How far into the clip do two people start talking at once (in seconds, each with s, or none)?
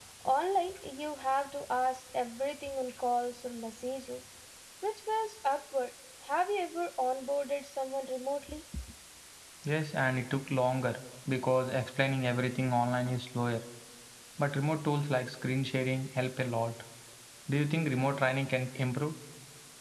none